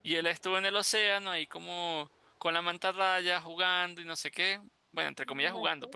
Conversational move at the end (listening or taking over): listening